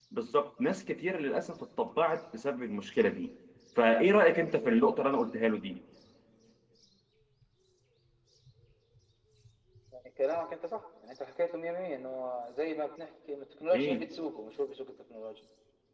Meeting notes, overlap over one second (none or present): none